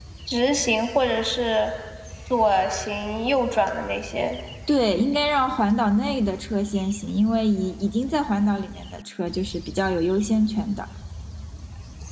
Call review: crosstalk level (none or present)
none